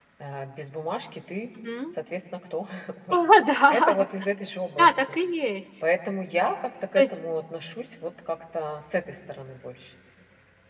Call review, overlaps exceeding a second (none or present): none